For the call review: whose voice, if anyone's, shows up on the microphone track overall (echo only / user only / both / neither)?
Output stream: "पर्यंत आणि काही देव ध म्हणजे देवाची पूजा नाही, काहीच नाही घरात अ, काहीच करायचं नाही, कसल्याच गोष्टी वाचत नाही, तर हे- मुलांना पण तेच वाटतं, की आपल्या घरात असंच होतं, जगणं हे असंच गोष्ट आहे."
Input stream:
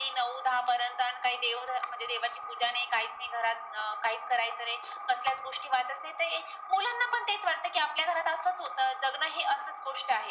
echo only